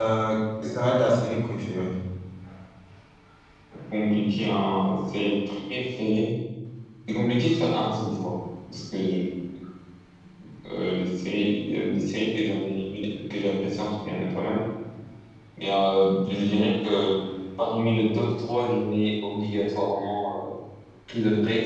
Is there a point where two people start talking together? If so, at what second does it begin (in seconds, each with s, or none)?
none